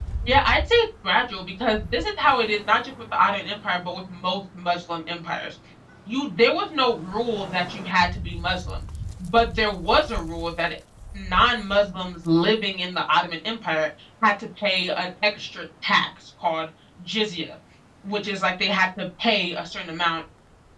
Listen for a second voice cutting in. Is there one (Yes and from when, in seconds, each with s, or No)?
No